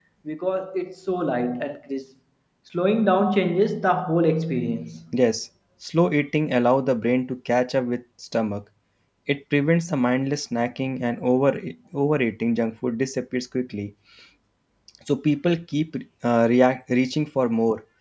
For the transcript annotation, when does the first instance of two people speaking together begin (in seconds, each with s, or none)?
none